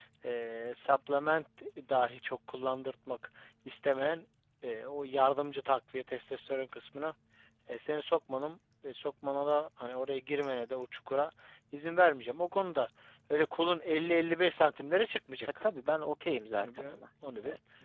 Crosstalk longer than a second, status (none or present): none